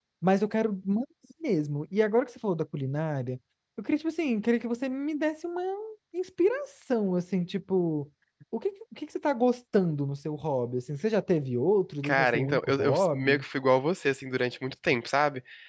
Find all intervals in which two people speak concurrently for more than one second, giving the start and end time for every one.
12.0-13.4

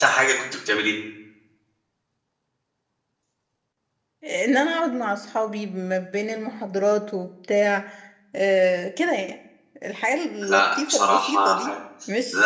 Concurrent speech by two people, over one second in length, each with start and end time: 10.5-11.7

